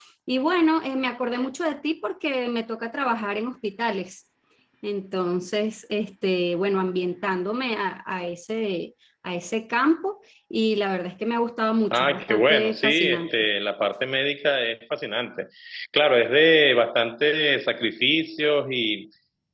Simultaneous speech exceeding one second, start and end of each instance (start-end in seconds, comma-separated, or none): 11.9-13.3